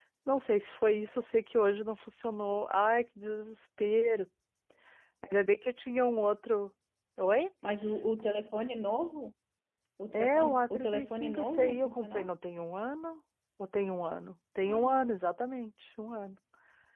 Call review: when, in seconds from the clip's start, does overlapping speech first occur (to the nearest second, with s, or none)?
10 s